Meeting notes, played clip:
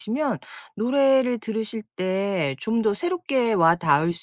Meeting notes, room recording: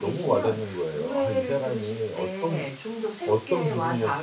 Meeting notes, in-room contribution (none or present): present